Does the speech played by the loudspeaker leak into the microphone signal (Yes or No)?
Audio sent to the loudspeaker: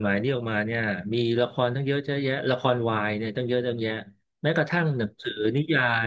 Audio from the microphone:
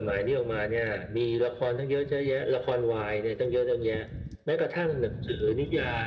Yes